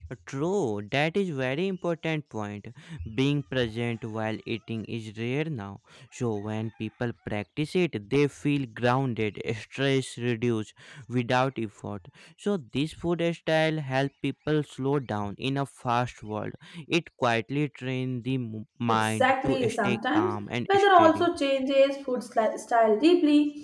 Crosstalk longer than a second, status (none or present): present